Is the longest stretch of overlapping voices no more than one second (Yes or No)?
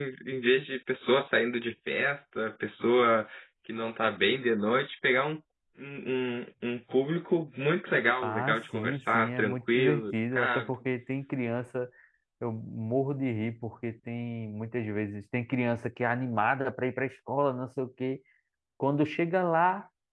No